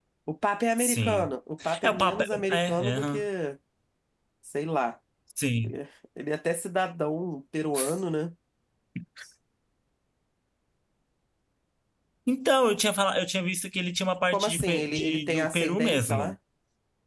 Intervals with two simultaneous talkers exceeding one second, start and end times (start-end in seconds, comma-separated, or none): 1.8-3.2, 14.3-16.3